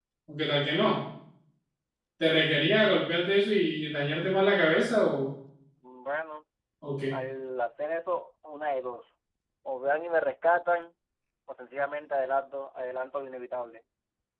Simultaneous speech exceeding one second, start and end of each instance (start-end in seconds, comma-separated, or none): none